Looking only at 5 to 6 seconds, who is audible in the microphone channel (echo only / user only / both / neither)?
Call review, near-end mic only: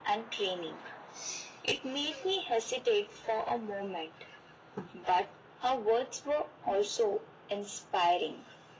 echo only